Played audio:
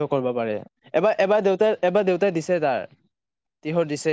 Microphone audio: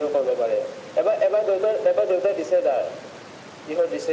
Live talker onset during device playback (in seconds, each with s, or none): none